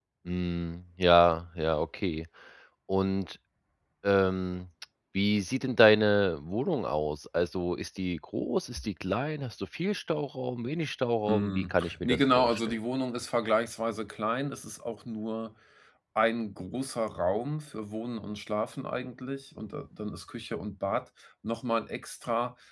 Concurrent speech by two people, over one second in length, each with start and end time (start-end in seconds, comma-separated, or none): 11.3-12.6